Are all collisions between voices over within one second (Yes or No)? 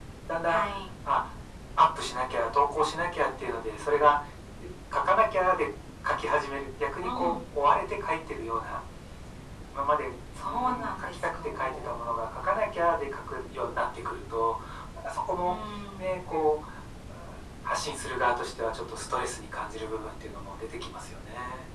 No